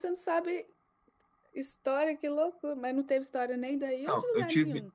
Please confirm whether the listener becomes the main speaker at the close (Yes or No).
Yes